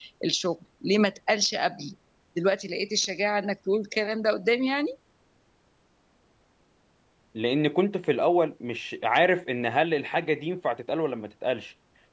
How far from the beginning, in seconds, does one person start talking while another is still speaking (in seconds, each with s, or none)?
none